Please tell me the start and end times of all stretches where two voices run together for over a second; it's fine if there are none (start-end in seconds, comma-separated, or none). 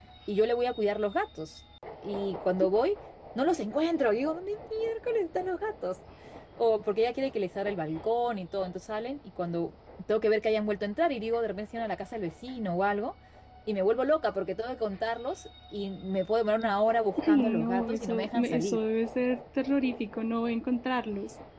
17.3-18.8